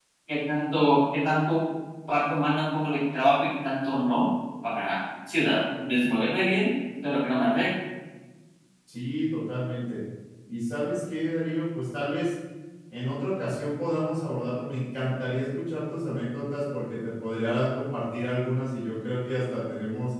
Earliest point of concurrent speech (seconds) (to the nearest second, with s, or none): none